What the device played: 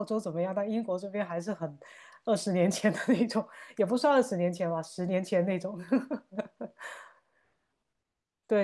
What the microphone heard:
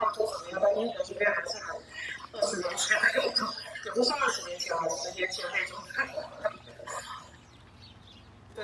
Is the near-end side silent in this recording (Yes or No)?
Yes